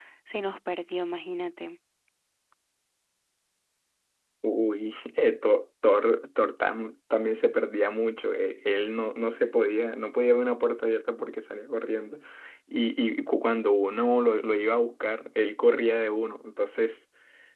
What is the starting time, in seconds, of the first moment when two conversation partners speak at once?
none

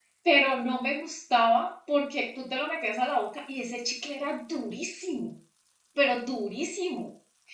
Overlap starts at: none

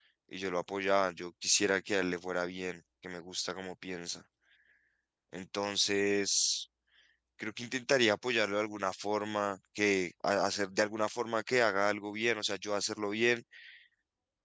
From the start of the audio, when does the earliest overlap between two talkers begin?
none

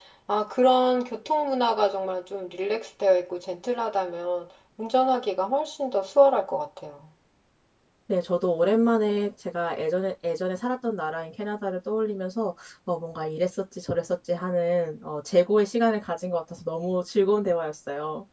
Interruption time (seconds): none

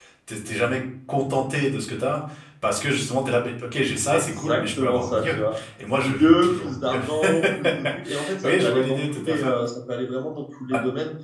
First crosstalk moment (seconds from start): 4 s

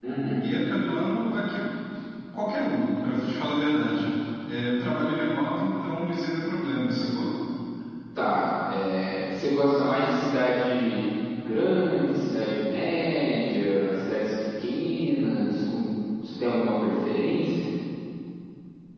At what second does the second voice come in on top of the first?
none

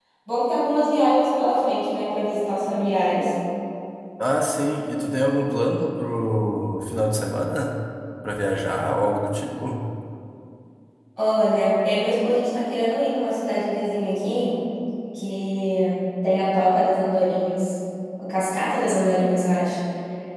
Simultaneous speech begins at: none

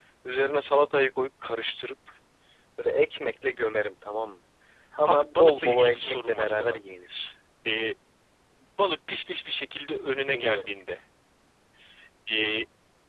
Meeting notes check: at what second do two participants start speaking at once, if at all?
5 s

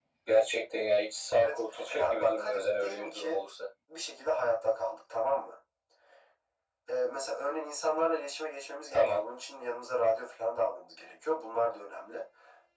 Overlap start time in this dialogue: 1 s

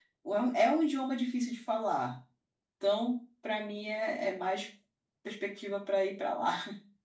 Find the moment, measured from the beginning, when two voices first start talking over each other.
none

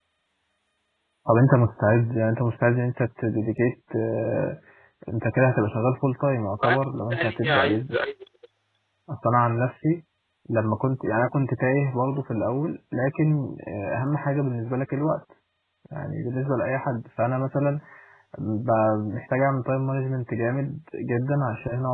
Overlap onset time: 7 s

